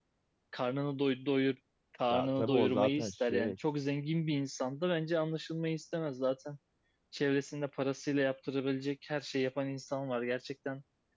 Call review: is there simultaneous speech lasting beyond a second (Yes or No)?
Yes